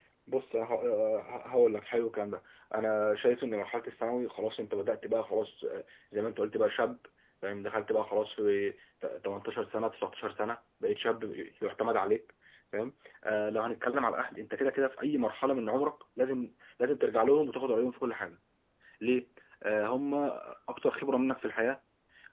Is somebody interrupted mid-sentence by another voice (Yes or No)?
No